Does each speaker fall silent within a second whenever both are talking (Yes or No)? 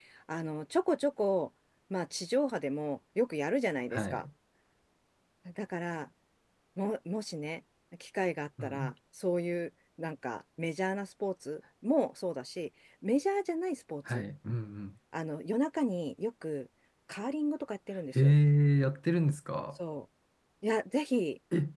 Yes